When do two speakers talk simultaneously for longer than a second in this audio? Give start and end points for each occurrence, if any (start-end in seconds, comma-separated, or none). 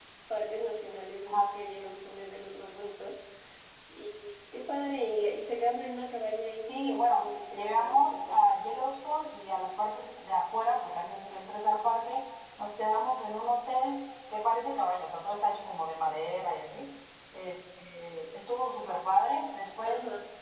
6.6-8.4